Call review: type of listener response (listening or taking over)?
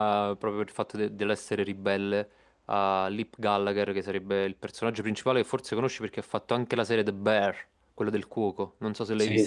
taking over